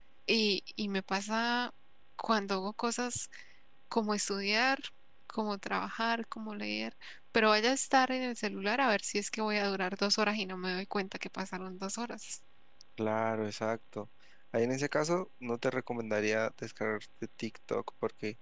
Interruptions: none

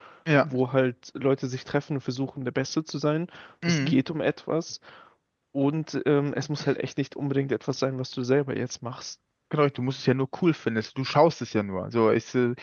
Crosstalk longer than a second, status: none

